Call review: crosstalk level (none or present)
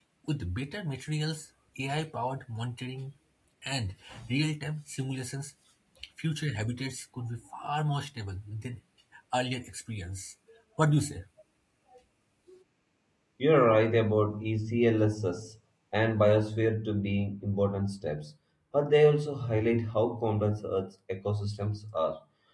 none